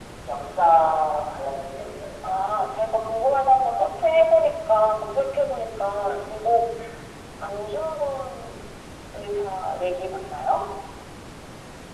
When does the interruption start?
none

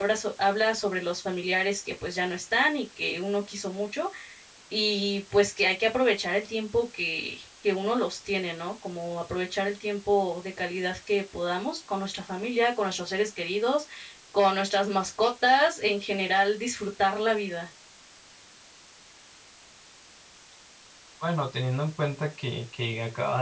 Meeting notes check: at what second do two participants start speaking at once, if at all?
none

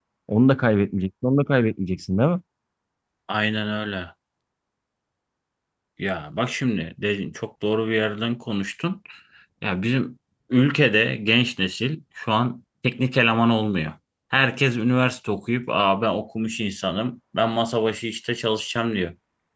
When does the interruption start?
none

